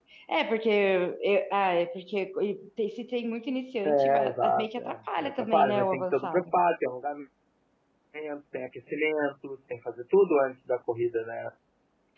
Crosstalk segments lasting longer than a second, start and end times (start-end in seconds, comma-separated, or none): 3.9-6.4